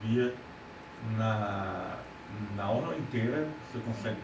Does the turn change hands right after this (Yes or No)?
No